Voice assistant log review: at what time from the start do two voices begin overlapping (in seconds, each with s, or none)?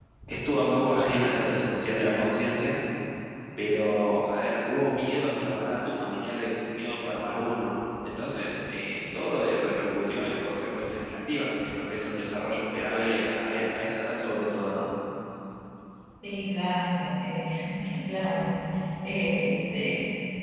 none